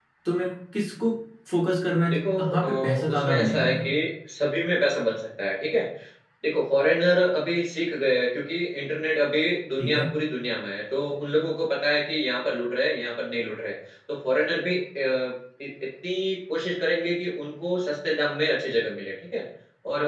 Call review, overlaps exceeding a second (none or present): present